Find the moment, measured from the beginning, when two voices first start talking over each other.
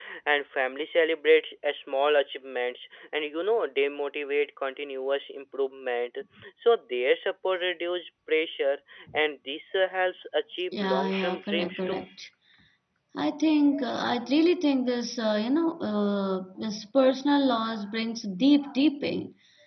10.7 s

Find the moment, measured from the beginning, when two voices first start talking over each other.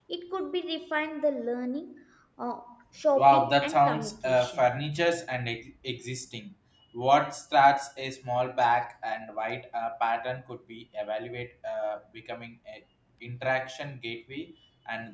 3.2 s

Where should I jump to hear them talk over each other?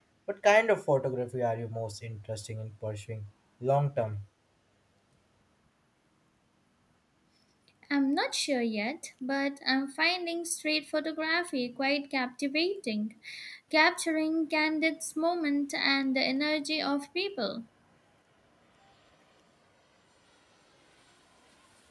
none

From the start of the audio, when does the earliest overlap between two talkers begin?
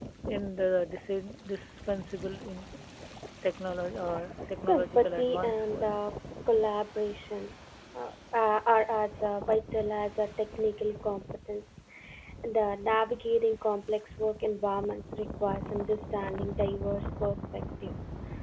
4.6 s

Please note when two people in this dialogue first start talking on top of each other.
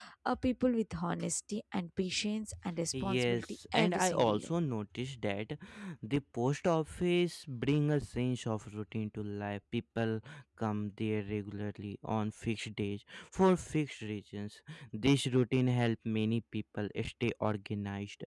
3.0 s

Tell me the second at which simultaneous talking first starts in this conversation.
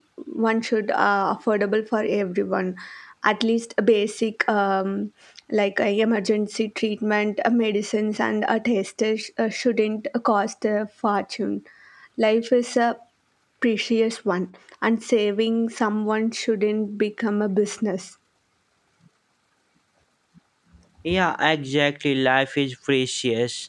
none

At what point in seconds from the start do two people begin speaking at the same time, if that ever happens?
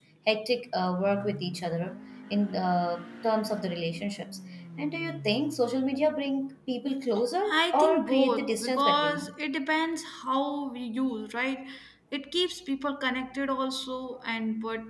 7.5 s

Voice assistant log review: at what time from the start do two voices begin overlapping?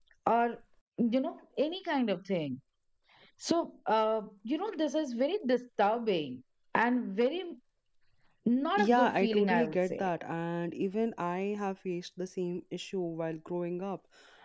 8.8 s

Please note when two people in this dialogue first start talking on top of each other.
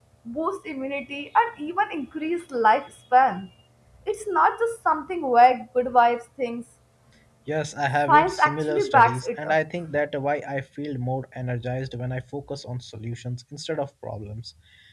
8.1 s

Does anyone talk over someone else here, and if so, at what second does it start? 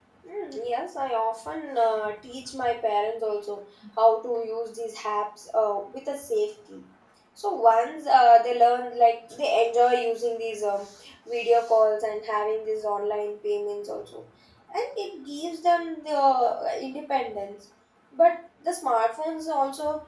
none

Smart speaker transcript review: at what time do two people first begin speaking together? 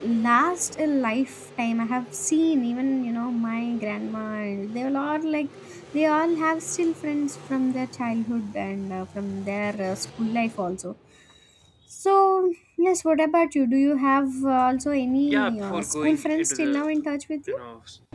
15.3 s

